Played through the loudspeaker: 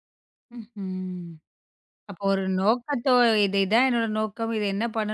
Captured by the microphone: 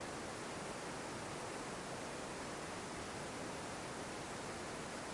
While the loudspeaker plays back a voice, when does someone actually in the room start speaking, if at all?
none

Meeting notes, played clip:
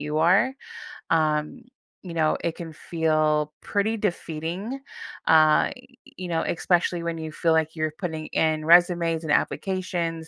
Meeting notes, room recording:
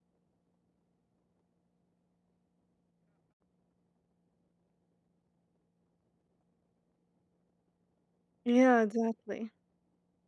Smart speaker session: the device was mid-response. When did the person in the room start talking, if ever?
8.4 s

